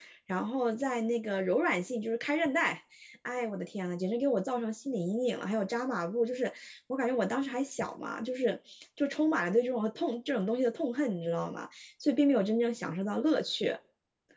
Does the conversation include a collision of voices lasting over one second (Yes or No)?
No